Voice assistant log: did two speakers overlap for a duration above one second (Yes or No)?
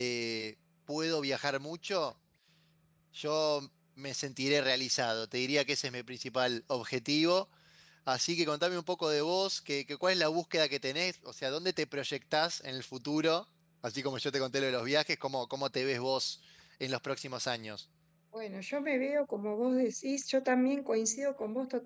No